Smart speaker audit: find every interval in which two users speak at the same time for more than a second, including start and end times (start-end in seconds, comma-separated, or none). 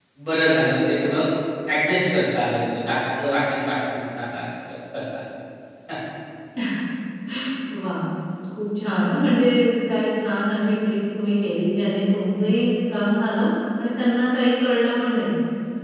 none